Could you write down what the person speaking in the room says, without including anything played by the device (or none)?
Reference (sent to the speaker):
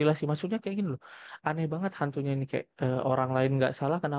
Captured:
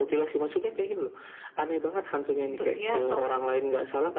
untuk dia pang.